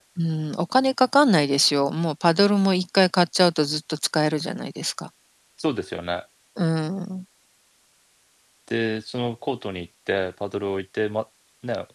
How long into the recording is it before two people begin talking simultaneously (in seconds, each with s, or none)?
none